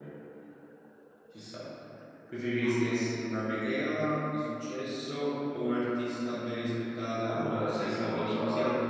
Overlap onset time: 7.2 s

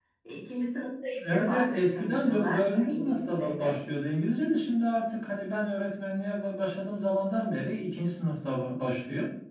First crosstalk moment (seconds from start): 1.3 s

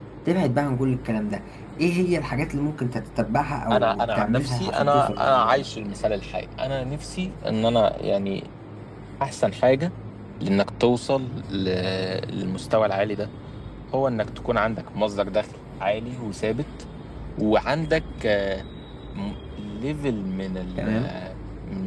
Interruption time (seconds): 3.7 s

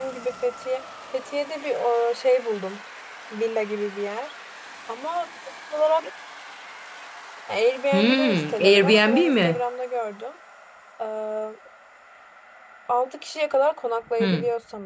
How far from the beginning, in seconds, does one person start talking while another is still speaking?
7.9 s

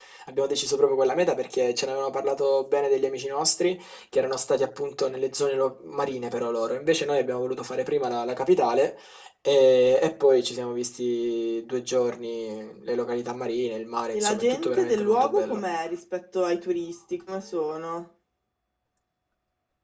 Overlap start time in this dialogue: 14.1 s

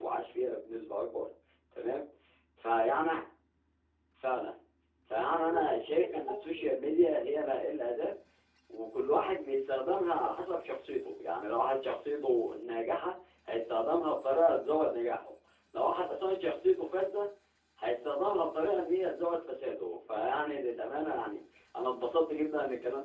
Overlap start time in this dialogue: 5.3 s

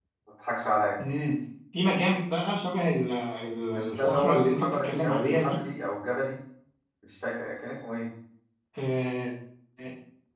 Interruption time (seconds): 3.7 s

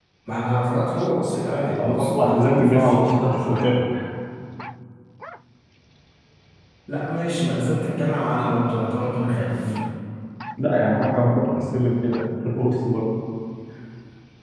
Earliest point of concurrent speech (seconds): 1.8 s

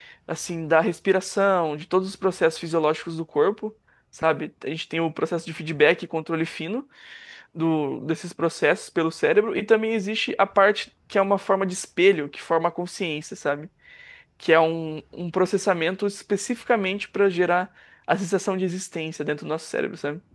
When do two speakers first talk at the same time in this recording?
none

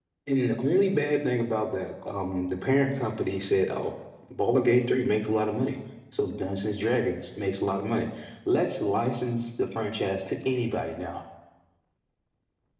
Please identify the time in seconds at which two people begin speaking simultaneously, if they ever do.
none

